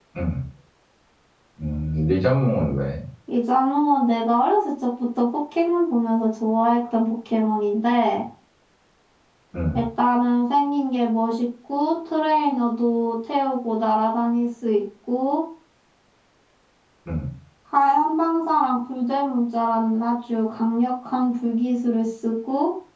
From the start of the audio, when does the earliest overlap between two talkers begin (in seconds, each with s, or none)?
none